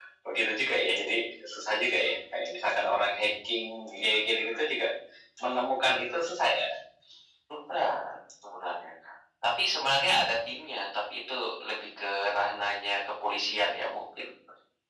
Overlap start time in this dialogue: none

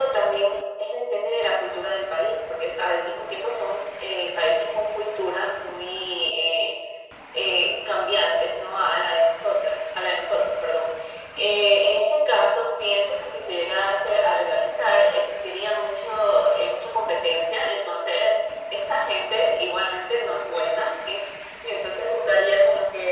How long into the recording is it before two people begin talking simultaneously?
none

